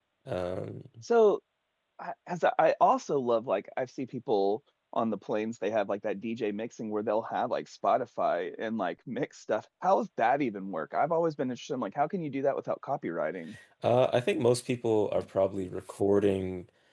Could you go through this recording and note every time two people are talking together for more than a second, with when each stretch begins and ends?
none

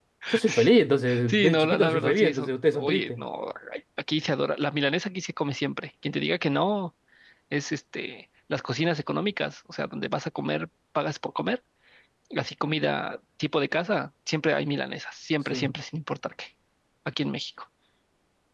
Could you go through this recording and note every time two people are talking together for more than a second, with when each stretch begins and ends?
1.3-3.2

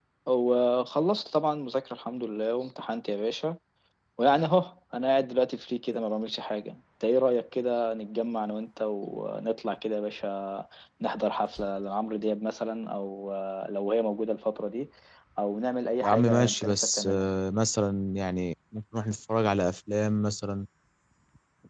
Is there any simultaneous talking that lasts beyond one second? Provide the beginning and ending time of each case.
16.0-17.3

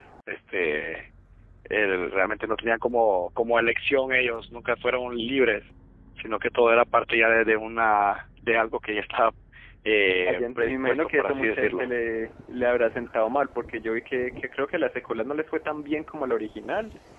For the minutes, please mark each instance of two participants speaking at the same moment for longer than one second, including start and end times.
10.2-11.9

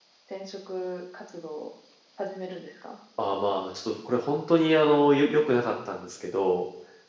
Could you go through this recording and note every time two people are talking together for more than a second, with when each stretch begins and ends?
none

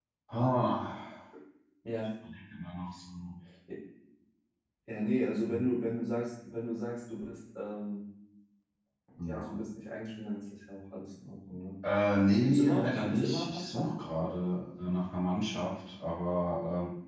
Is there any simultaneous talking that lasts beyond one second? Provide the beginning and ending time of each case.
12.4-13.9

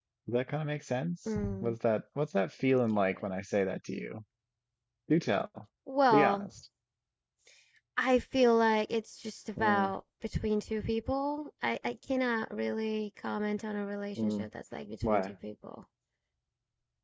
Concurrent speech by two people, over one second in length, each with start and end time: none

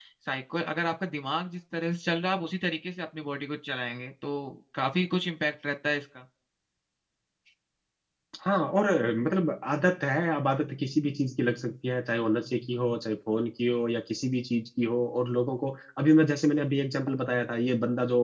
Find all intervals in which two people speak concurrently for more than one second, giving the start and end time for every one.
none

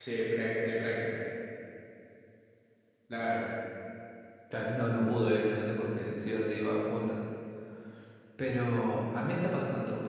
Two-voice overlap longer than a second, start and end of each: none

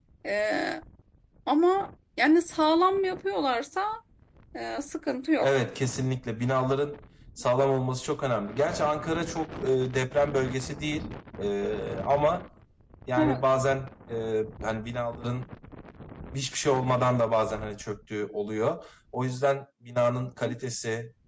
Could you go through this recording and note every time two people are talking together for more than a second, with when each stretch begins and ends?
none

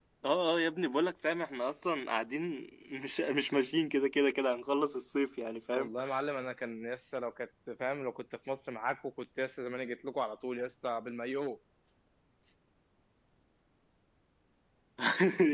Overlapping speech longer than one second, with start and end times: none

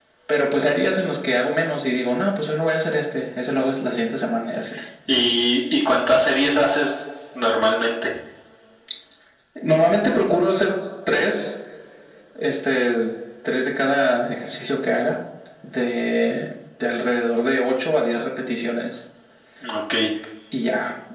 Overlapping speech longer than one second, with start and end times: none

